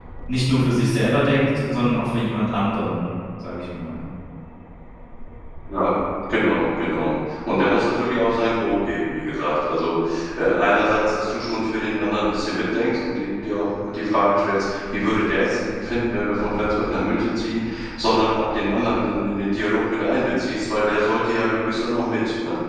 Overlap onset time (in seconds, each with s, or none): none